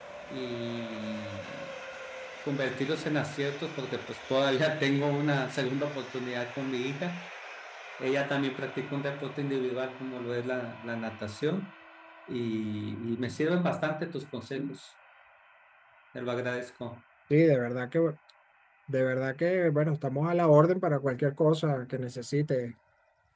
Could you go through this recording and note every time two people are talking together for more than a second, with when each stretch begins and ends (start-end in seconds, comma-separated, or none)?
none